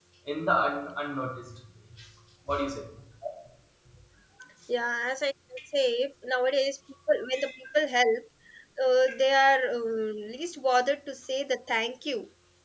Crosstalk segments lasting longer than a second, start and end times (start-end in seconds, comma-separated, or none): none